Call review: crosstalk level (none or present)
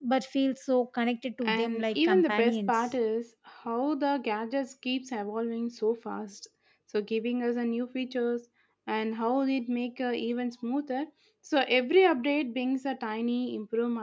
present